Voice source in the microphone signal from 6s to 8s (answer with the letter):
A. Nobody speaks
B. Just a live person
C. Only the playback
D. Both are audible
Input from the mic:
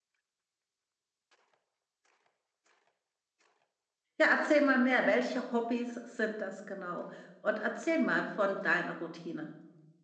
B